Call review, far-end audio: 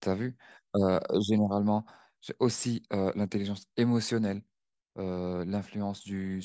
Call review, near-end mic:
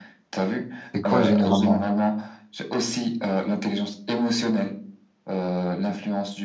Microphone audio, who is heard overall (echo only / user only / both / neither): both